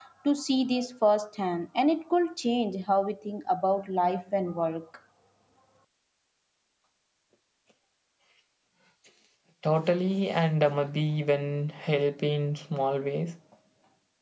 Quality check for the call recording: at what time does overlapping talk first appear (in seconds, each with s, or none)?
none